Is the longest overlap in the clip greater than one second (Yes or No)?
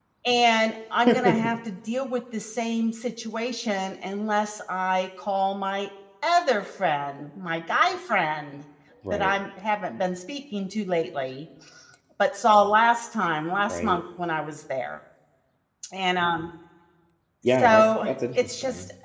Yes